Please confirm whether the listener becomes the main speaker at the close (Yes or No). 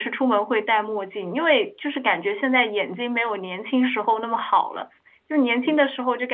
No